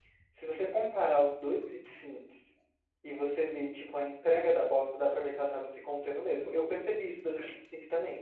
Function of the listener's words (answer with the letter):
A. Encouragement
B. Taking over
A